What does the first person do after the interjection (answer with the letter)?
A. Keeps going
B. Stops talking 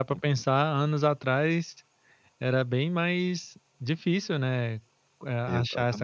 A